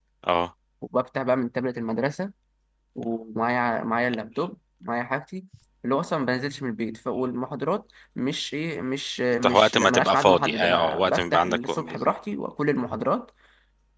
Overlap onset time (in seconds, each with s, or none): 9.4 s